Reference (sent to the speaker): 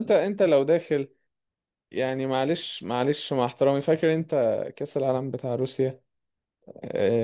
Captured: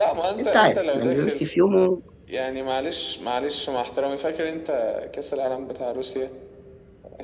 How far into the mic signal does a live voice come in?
0.4 s

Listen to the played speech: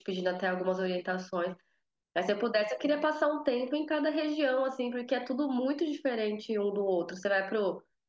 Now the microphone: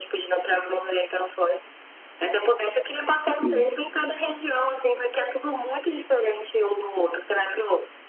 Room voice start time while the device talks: 3.3 s

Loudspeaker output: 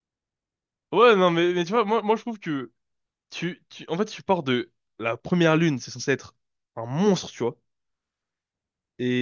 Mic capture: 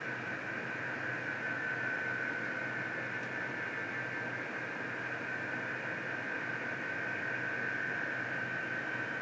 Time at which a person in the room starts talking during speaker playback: none

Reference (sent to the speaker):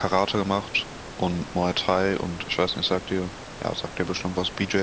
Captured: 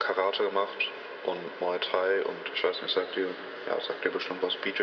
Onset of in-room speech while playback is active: none

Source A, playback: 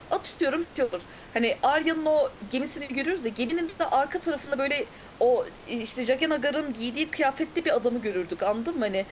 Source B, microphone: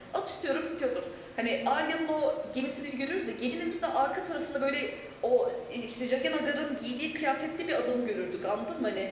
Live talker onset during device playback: none

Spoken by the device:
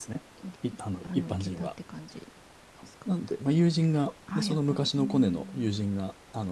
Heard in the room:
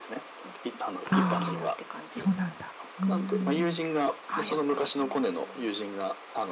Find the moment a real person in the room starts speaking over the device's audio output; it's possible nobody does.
1.1 s

